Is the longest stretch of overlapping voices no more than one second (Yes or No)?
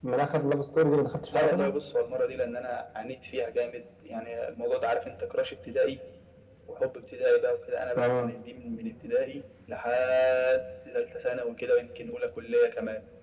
Yes